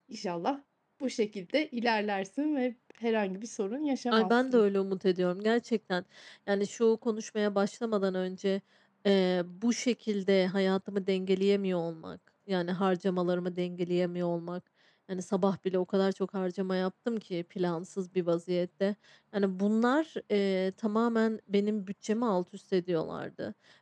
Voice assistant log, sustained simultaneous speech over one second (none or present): none